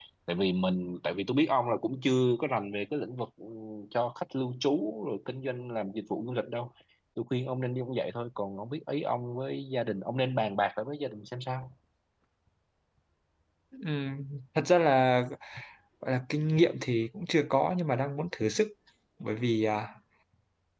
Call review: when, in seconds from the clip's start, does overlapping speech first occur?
none

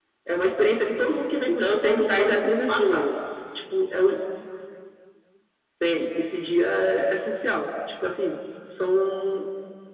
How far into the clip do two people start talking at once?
1 s

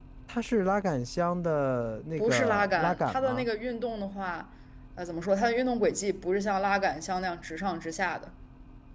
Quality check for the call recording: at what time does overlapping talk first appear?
2 s

